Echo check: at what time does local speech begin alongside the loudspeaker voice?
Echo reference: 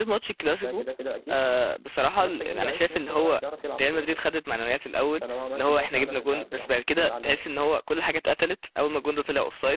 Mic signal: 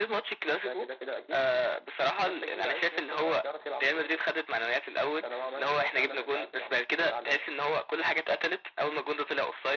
none

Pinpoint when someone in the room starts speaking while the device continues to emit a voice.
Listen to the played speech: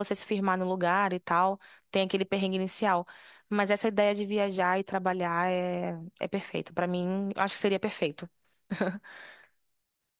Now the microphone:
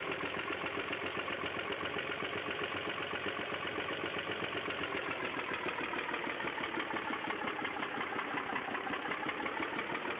none

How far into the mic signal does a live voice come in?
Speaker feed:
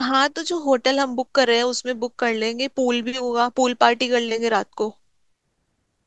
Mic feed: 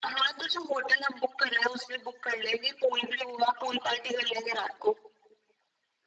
none

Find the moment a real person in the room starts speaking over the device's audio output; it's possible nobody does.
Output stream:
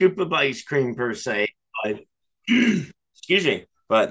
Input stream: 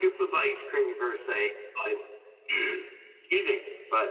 none

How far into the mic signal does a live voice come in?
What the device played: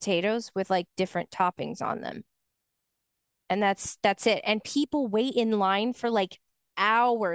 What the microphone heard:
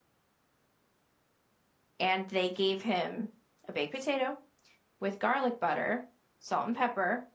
2.0 s

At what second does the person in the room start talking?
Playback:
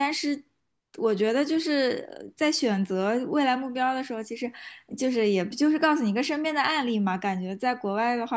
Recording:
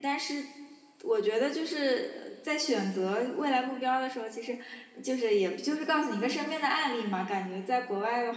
none

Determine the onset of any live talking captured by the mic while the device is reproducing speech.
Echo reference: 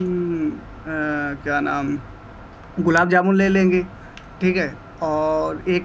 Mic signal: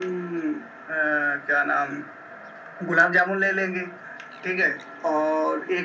none

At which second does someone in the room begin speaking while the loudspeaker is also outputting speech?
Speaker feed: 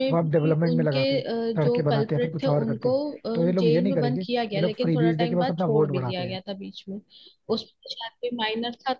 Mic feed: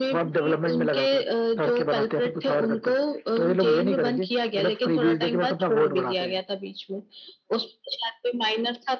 none

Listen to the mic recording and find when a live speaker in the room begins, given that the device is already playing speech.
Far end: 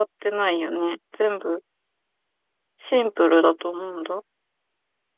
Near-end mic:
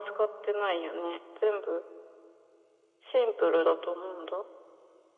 none

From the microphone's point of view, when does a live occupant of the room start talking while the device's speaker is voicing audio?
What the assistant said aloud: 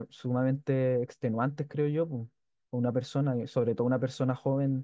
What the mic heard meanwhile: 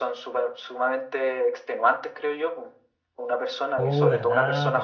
3.8 s

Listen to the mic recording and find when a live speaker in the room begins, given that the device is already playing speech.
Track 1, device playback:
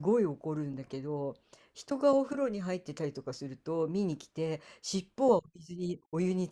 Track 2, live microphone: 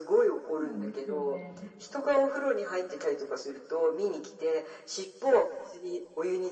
0.5 s

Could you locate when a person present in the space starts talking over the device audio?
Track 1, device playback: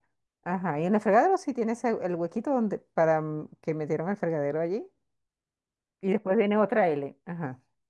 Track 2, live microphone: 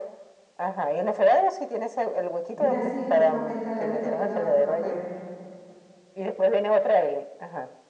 2.6 s

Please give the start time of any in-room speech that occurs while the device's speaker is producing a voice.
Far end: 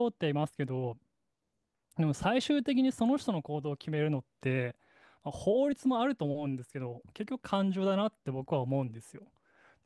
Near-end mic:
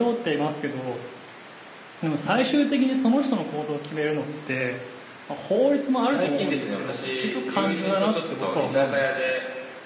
6.0 s

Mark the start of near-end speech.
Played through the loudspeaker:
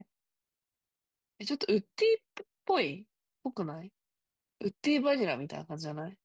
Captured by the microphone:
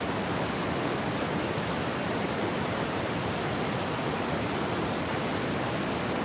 none

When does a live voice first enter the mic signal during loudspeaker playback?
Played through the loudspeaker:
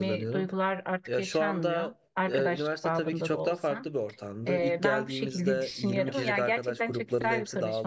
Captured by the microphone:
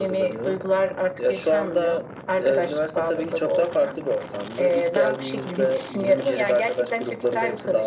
none

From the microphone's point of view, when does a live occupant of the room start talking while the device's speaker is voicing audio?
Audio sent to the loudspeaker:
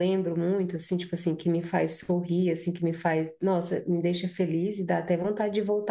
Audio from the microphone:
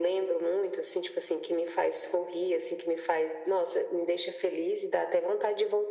none

